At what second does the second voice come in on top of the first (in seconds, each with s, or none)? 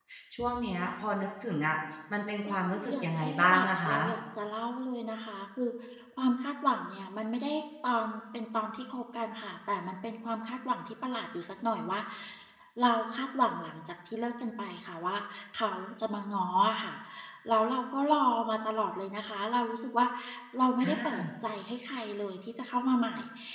2.5 s